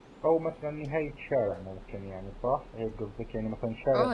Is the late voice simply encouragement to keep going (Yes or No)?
No